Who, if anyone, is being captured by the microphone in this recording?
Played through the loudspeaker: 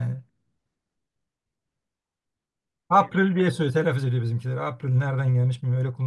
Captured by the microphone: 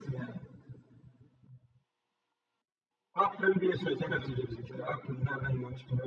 echo only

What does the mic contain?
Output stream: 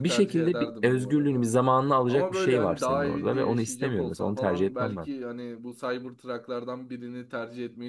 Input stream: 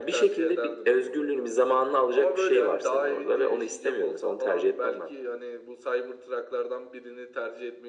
echo only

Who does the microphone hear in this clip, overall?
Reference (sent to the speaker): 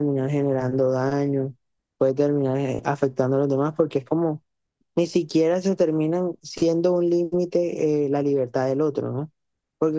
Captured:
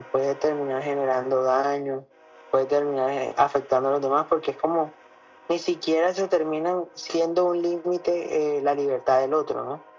echo only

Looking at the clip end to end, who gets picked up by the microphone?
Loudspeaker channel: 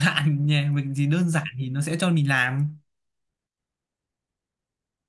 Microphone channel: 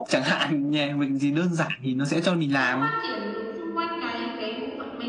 both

